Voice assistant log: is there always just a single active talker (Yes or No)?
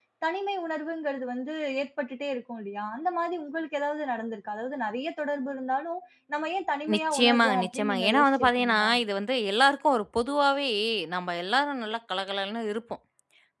No